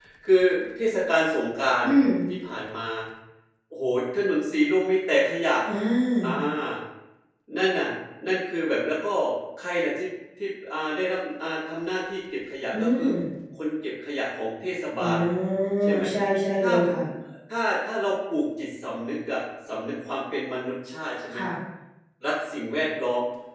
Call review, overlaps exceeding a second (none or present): none